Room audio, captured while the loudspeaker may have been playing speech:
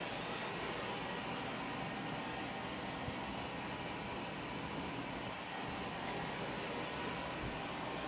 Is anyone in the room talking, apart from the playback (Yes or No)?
No